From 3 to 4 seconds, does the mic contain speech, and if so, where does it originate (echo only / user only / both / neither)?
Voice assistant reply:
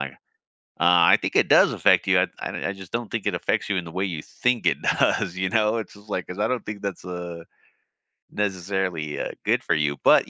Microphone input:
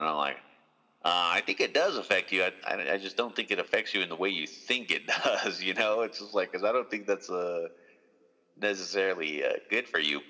echo only